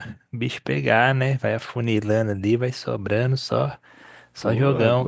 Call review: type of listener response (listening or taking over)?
taking over